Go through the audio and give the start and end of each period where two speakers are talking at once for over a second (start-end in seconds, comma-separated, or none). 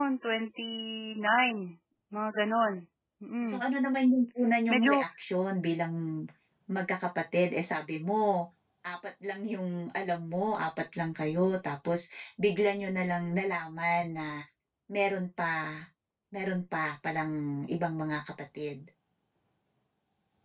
none